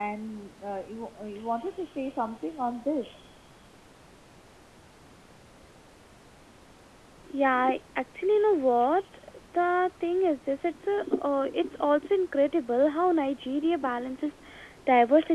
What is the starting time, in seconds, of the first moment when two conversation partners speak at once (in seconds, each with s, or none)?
none